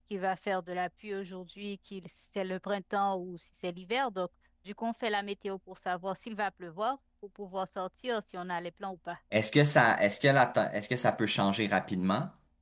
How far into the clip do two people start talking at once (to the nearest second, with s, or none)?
none